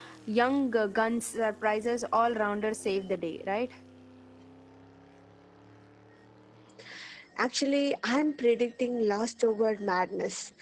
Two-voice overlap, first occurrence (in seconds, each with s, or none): none